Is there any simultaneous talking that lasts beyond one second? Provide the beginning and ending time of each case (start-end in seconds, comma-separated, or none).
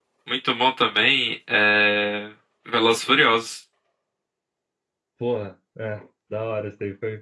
none